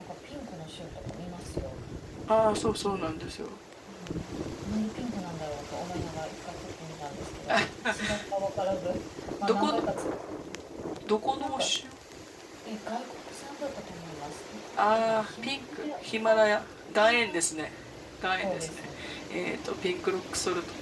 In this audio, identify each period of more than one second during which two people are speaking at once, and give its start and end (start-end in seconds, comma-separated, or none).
14.7-16.5